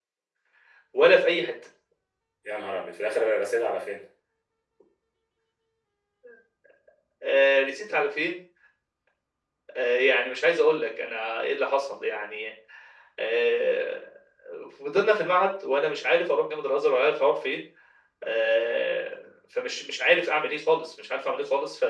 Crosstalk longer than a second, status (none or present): none